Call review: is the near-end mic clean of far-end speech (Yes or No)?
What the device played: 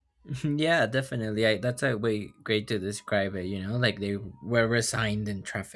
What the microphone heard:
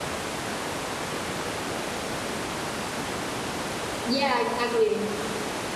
Yes